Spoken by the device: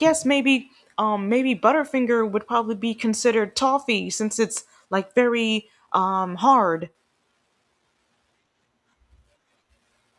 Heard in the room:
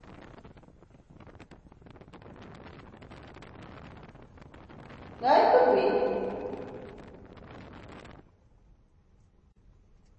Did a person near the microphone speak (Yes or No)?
Yes